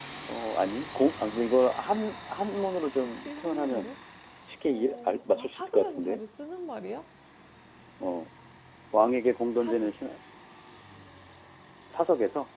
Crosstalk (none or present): present